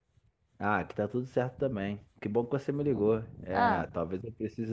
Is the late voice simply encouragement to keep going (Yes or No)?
Yes